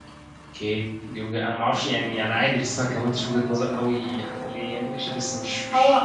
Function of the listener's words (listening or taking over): taking over